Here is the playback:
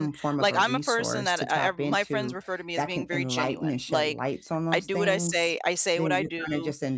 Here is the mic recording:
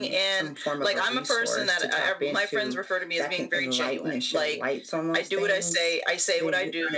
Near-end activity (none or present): none